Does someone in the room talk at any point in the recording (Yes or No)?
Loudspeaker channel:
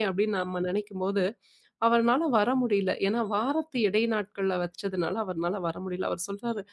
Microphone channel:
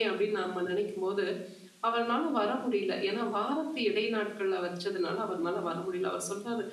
Yes